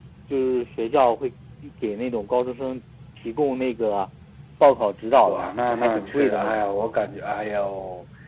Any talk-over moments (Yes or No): Yes